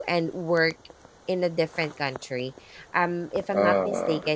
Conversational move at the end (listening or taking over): listening